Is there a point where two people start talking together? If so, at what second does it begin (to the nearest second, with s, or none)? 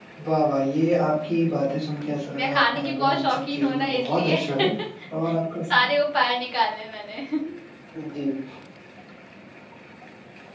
2 s